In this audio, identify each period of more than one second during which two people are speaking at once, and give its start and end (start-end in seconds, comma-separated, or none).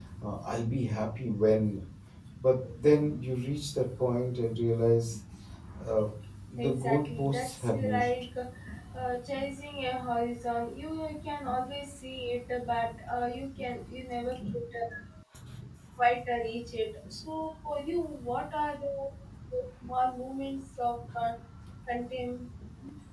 6.6-8.0